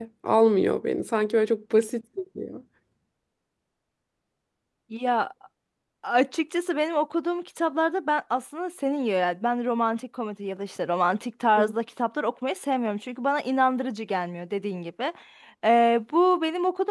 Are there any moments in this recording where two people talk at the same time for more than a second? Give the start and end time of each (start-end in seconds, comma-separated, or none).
none